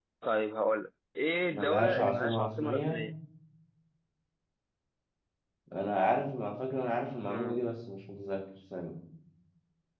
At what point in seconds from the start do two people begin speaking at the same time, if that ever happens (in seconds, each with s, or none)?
1.5 s